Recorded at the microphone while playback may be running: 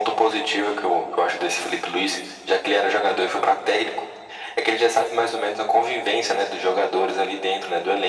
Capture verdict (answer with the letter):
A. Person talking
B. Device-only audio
B